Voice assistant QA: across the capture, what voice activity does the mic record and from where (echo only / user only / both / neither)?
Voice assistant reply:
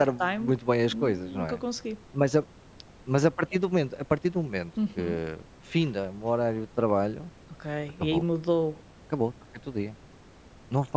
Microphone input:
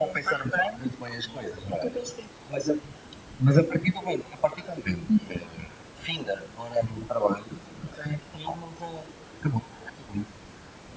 echo only